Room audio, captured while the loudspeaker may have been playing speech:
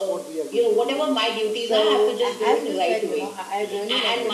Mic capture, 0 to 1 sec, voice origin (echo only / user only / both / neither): echo only